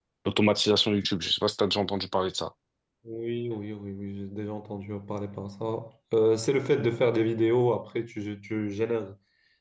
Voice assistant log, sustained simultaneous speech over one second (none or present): none